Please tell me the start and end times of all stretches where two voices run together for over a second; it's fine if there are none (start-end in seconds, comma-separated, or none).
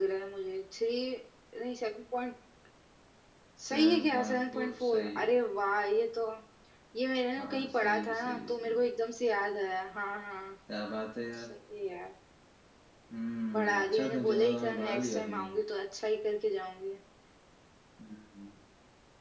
3.6-5.3, 7.4-8.8, 13.5-15.4